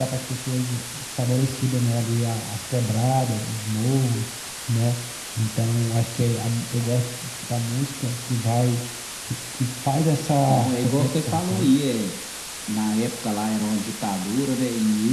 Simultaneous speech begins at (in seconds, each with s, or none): 10.2 s